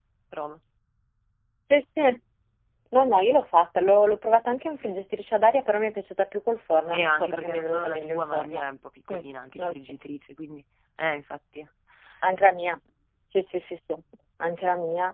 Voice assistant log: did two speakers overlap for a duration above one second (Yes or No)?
Yes